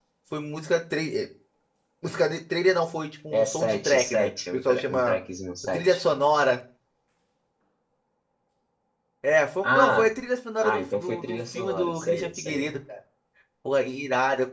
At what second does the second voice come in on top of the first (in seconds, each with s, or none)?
3.3 s